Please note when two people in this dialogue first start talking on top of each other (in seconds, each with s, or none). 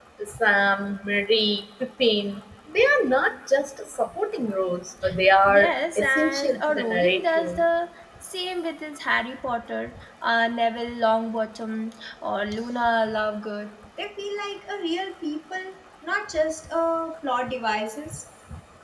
5.5 s